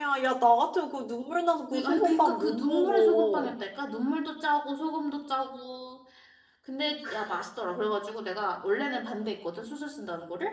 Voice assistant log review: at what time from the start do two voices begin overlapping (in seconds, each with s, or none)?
1.7 s